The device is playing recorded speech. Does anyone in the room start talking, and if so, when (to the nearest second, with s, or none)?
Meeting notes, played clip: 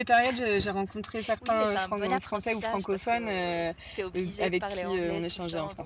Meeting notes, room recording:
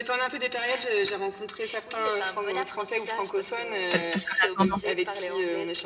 4 s